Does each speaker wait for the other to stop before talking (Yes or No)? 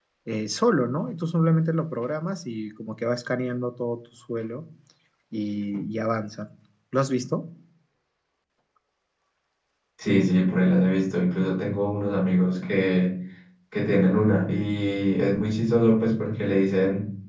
Yes